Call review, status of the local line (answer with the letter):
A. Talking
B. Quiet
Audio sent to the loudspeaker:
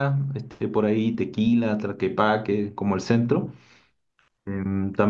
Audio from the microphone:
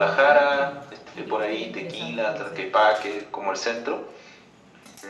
A